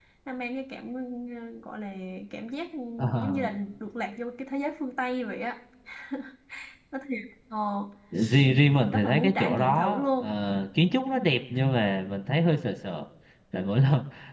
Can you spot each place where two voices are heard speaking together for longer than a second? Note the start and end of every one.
8.9-10.3

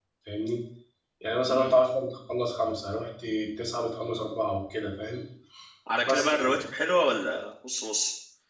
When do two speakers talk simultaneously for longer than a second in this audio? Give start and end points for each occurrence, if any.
none

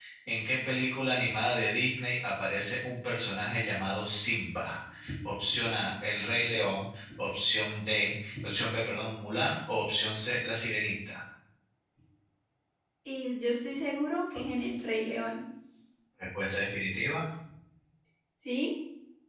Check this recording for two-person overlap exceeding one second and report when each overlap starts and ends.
none

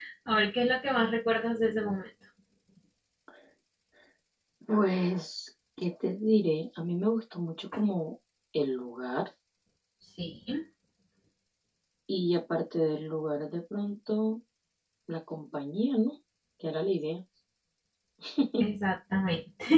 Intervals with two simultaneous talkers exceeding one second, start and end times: none

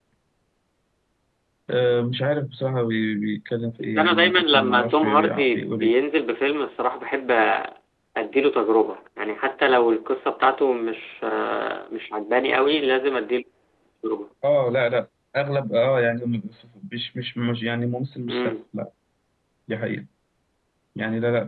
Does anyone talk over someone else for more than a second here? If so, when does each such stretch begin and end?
3.8-5.9

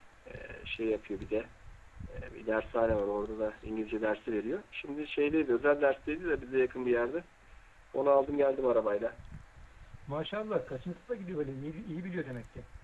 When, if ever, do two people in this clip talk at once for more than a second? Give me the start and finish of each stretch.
none

